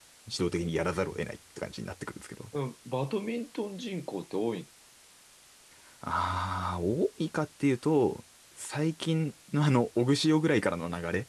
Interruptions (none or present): none